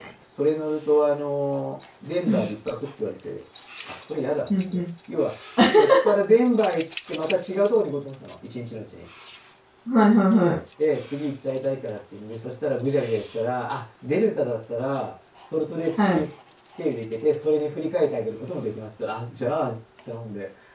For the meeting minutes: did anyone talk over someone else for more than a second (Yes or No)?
No